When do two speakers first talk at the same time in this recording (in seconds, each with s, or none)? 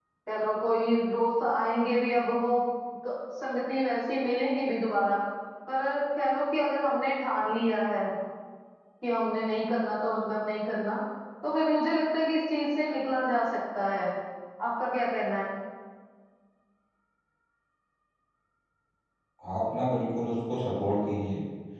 none